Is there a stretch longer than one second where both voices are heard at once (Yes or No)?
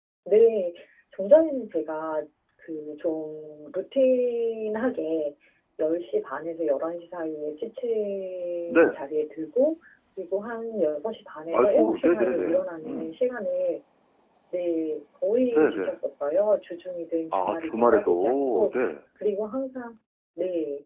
Yes